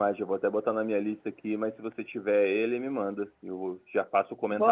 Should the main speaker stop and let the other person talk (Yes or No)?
Yes